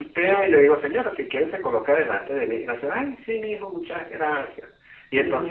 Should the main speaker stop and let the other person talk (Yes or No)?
No